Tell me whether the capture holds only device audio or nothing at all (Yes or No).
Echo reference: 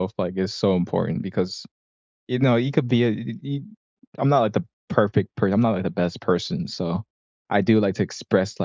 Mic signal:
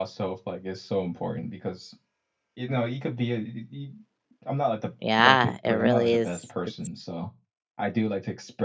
No